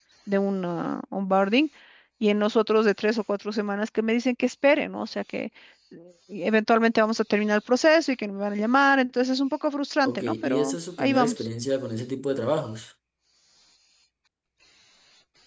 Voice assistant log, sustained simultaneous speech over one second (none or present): present